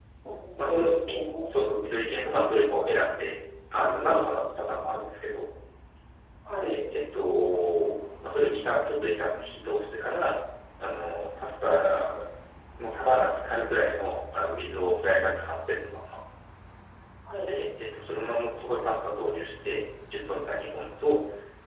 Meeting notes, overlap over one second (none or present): none